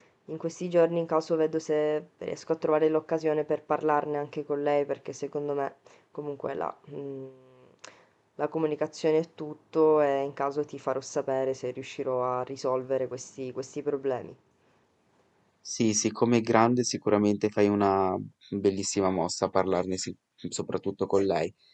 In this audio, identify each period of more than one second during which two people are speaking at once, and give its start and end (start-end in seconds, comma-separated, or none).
none